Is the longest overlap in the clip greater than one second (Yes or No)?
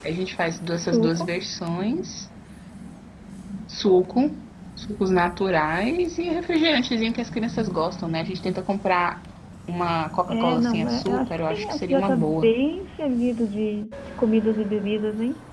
Yes